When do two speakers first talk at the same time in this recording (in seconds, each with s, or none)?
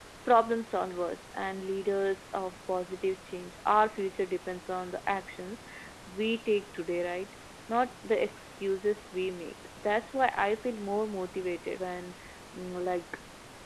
none